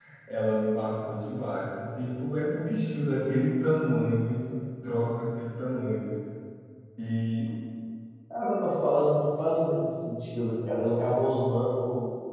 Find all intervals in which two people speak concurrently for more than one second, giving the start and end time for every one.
none

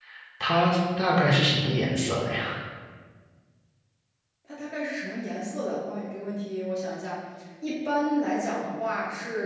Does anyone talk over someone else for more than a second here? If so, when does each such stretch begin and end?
none

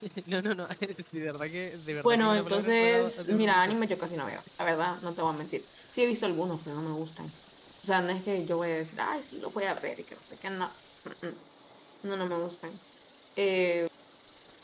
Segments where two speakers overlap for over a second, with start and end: 2.0-3.7

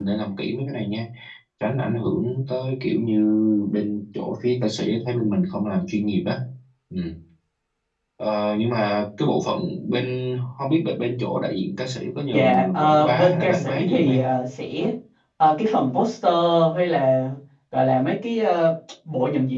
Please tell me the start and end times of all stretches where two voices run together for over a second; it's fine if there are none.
12.3-14.3

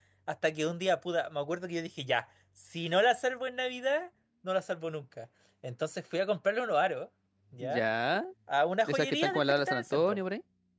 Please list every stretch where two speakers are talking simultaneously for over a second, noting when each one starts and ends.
8.8-10.2

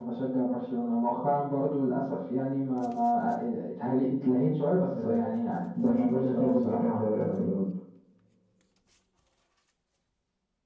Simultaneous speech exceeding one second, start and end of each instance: 5.8-7.5

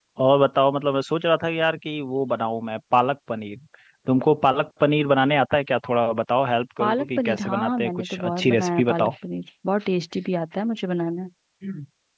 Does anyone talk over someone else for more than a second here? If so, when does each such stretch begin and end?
6.8-9.1

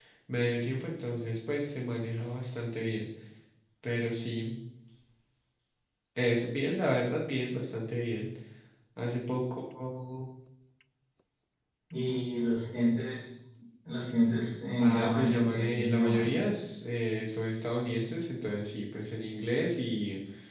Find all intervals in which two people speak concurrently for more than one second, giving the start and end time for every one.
14.8-16.3

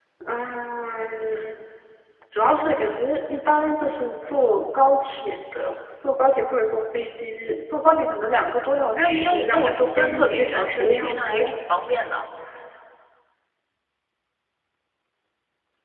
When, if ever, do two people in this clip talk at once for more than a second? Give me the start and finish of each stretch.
8.8-11.4

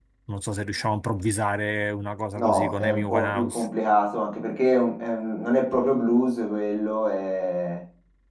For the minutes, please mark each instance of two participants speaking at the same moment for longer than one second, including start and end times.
2.4-3.7

